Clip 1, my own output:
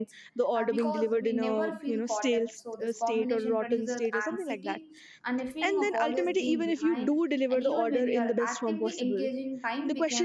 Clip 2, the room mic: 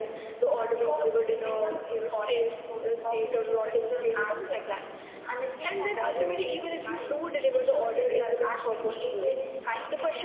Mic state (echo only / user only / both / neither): echo only